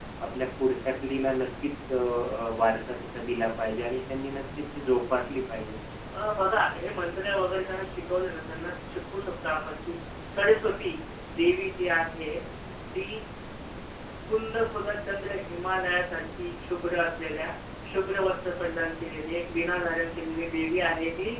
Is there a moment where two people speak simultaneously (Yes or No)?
No